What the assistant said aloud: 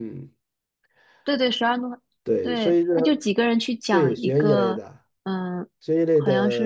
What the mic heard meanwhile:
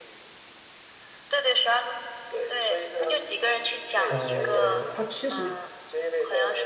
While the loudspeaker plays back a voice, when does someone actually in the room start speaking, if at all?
4.1 s

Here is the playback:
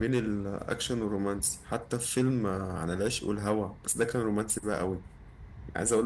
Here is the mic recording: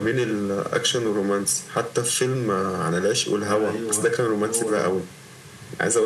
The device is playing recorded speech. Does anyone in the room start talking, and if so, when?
3.5 s

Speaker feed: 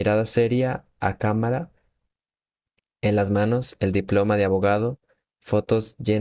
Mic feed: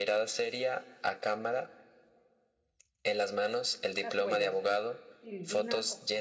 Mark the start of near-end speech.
4.0 s

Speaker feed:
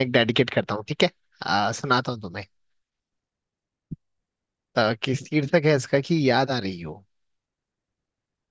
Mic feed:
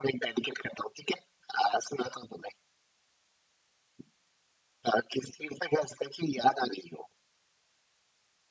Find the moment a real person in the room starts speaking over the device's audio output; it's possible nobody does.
none

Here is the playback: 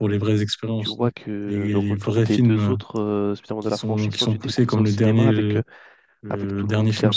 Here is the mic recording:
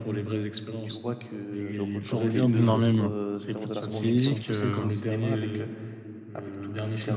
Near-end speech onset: 2.0 s

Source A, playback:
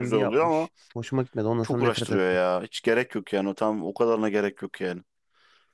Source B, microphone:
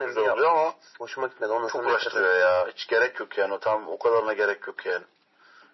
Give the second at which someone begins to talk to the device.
none

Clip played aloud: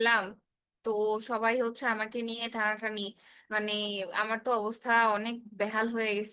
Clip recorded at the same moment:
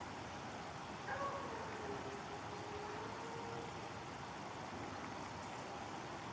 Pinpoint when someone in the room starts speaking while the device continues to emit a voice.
none

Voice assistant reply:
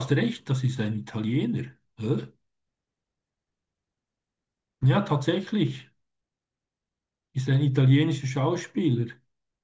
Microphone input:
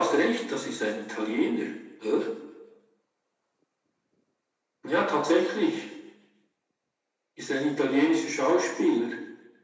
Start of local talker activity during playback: none

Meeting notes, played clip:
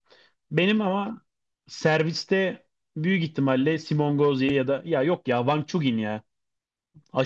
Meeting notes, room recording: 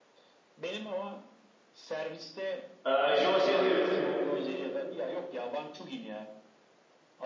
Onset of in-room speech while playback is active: 2.8 s

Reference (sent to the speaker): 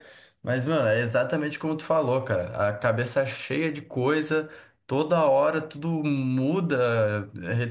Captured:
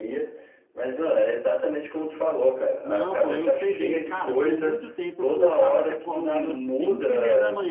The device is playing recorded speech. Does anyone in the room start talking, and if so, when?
2.8 s

